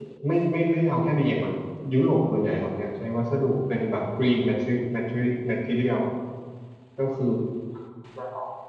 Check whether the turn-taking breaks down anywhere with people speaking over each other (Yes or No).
No